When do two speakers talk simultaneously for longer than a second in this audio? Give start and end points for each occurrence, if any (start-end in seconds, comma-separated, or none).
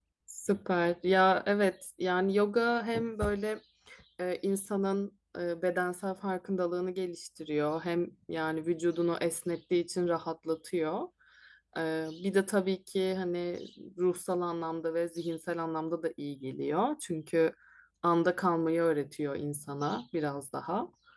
none